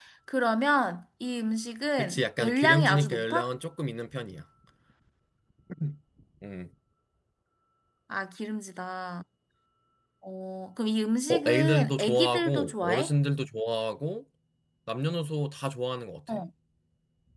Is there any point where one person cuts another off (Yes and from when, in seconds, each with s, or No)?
Yes, from 2.0 s